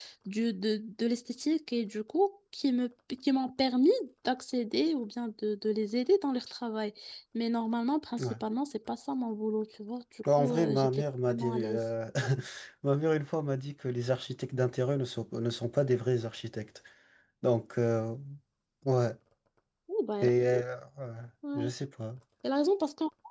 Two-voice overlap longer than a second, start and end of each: 10.3-11.8

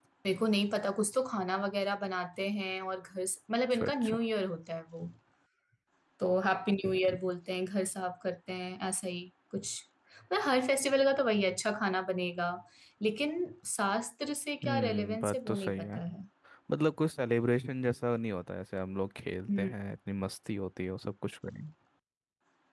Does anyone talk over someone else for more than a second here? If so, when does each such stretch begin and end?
14.6-16.0

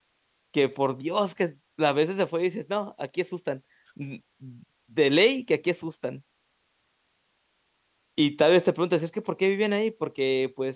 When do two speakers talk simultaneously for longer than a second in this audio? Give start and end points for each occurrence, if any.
none

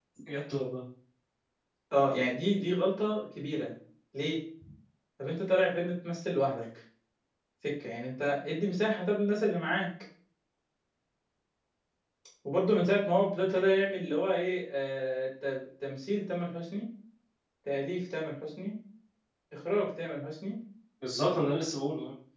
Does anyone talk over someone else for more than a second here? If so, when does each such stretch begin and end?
none

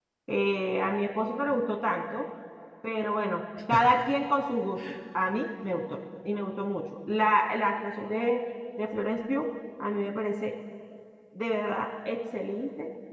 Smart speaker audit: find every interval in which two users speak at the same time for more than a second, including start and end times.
none

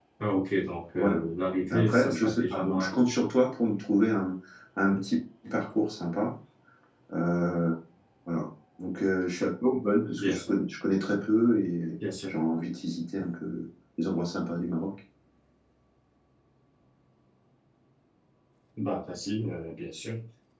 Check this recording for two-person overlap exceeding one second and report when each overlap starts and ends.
1.7-3.2

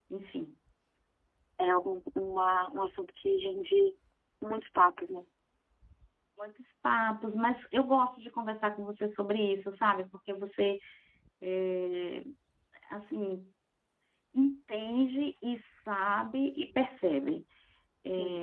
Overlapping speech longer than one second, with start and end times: none

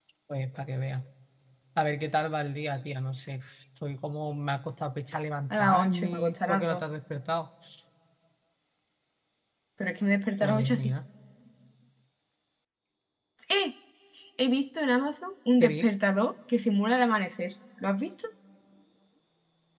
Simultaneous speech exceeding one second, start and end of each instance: 5.5-6.8

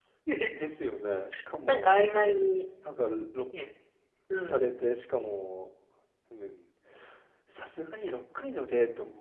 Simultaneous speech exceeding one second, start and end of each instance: none

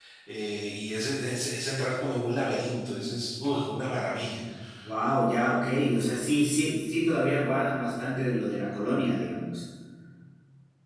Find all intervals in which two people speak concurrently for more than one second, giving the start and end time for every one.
none

